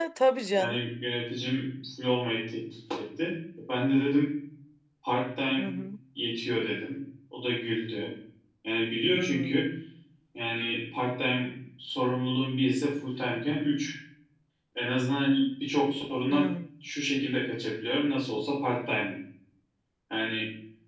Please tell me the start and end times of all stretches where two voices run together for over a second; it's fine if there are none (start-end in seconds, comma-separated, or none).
none